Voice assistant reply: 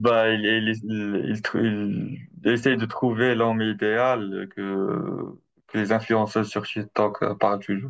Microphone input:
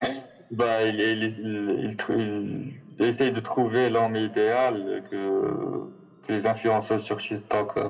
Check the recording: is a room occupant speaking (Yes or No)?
No